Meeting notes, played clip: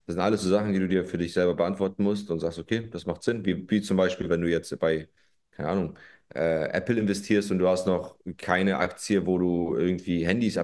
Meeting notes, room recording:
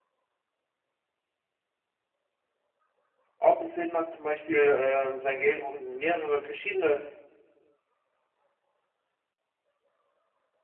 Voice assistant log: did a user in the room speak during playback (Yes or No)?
Yes